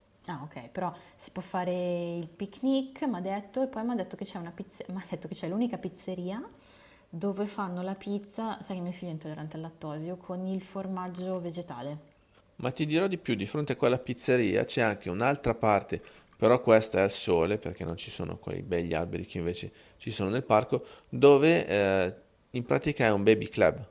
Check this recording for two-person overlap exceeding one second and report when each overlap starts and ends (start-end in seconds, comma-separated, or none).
none